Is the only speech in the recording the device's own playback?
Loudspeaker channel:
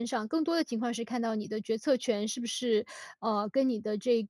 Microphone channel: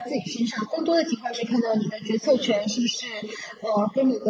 No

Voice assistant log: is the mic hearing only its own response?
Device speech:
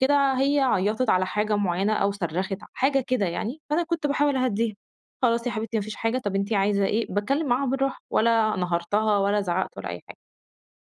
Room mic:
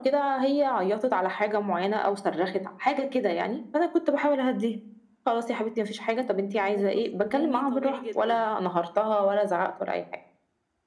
No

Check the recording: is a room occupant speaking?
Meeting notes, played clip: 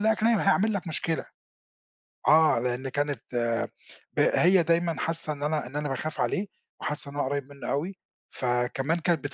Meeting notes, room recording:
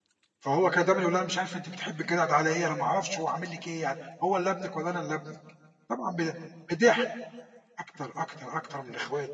Yes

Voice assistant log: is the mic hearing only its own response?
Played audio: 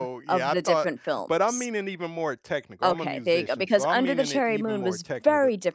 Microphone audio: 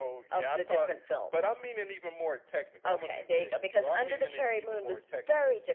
Yes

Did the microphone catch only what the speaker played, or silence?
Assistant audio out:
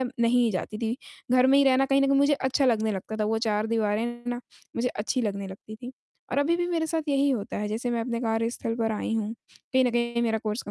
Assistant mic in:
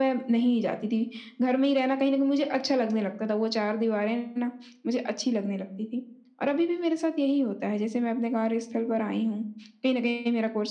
Yes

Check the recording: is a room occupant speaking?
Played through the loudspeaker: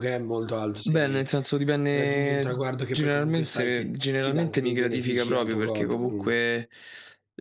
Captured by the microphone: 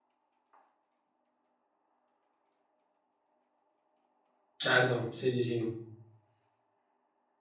Yes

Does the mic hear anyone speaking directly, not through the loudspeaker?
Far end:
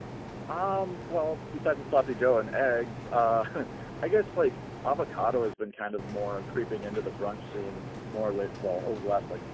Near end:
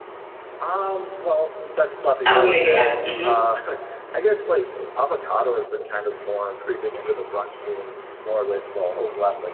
Yes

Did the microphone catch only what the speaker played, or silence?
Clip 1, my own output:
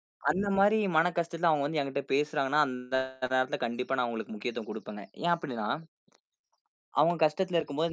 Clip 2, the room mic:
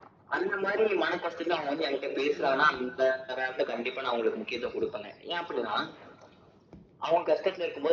No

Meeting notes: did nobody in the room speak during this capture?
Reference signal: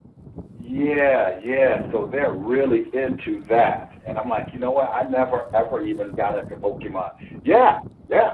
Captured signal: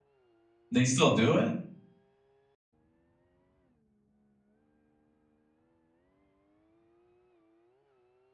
No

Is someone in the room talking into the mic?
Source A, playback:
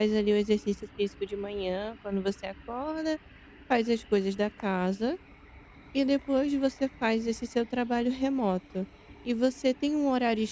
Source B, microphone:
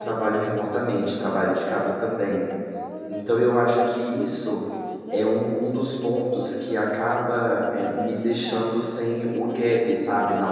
Yes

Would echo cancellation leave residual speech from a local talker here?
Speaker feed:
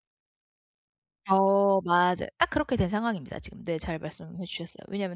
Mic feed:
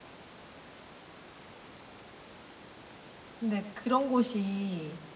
Yes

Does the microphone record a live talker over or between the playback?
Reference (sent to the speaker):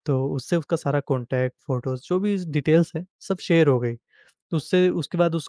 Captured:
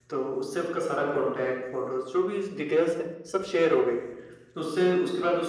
No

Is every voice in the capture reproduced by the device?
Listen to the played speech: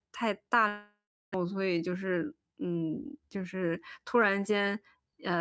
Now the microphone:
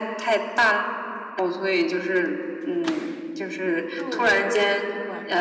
No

